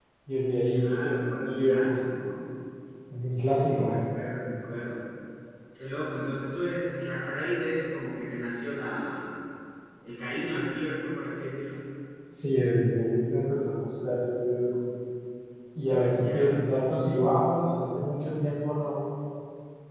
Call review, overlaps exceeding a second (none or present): present